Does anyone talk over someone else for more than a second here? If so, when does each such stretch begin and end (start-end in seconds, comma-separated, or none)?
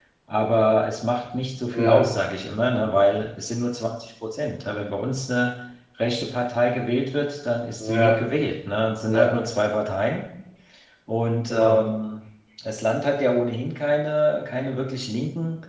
none